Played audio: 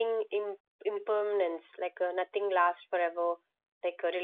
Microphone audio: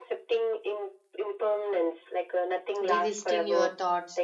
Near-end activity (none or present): present